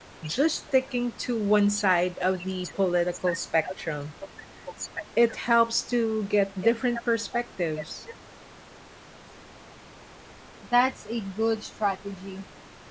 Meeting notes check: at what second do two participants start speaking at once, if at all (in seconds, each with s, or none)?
none